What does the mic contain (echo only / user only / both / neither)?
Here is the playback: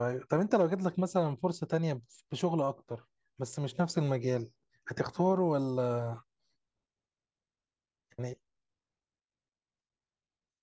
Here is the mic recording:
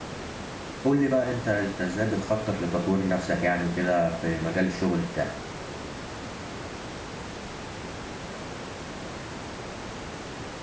user only